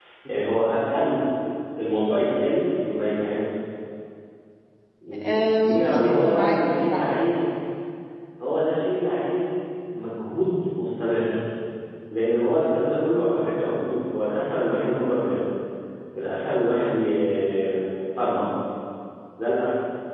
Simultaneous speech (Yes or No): Yes